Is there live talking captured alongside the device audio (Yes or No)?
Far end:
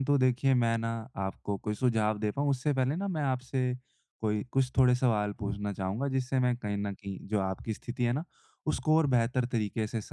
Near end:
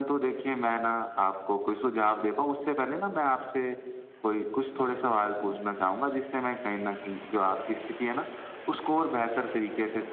No